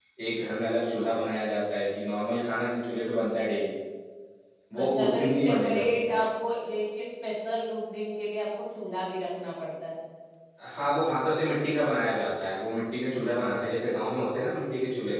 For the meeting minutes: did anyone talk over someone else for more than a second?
Yes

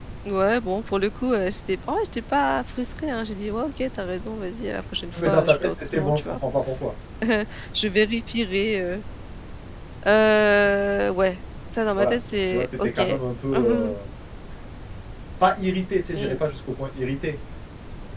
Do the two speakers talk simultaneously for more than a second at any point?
Yes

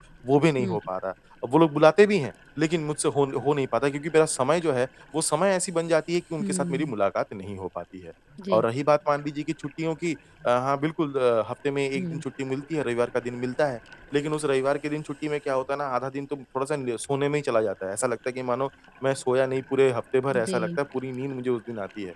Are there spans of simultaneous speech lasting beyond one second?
No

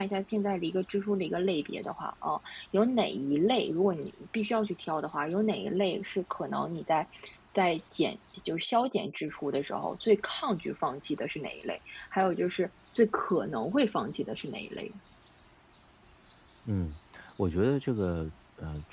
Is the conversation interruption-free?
Yes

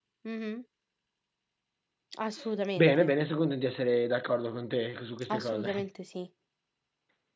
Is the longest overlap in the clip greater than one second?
No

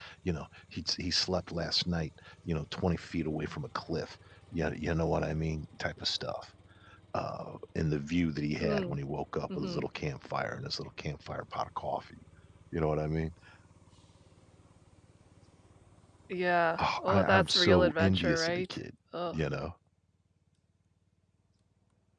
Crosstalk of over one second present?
Yes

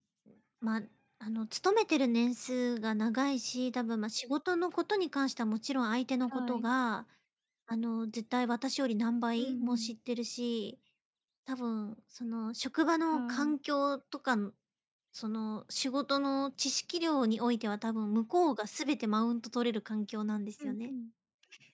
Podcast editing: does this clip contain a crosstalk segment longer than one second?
No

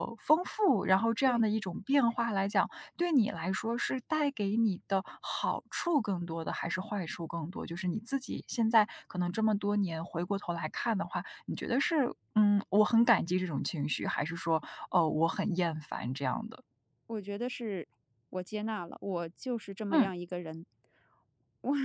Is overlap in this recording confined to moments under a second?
Yes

